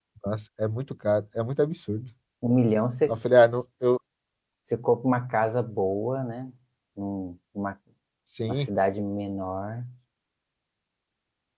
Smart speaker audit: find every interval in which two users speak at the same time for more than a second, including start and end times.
none

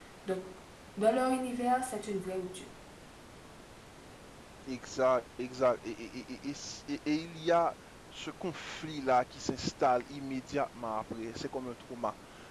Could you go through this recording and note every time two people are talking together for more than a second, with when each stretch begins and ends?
none

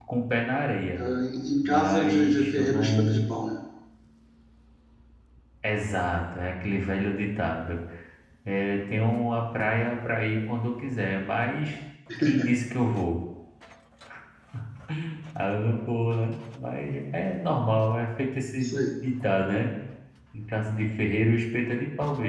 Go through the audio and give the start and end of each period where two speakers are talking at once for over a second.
1.6-3.3

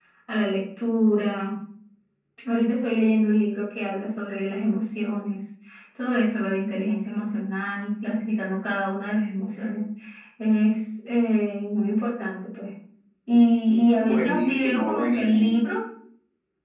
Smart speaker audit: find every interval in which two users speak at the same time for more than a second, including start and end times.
14.0-15.5

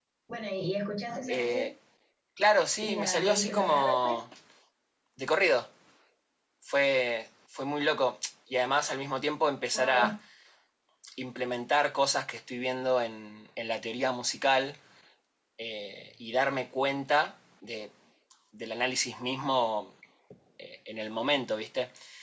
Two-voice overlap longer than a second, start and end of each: 2.8-4.2

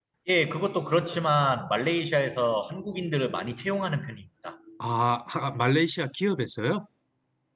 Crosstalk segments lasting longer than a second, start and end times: none

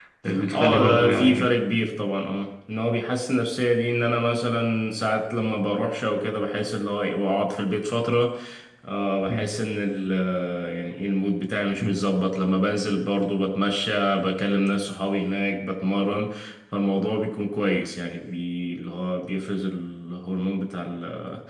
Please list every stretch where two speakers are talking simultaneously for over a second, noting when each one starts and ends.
0.5-1.9

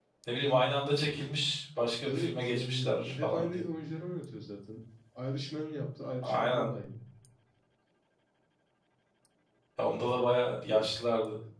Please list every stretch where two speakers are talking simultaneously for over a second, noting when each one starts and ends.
2.0-3.6

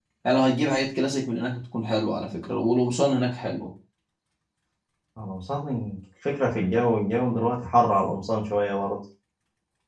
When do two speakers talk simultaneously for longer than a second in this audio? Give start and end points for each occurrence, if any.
none

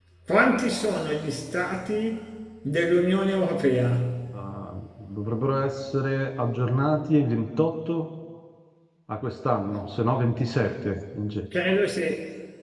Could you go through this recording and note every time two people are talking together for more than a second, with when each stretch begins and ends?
none

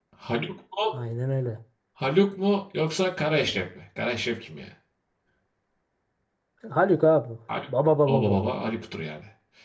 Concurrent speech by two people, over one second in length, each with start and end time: none

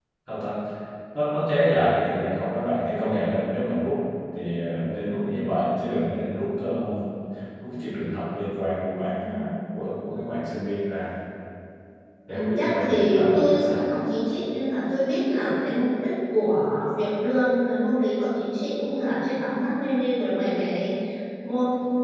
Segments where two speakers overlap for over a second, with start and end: 12.3-13.9

